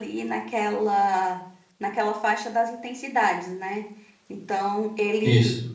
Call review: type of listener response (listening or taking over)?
listening